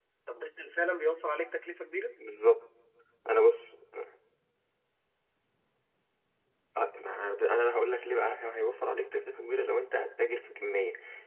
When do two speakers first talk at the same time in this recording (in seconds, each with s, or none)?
none